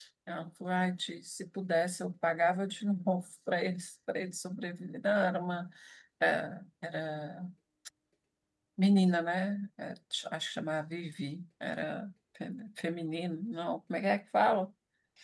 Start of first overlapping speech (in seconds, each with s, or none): none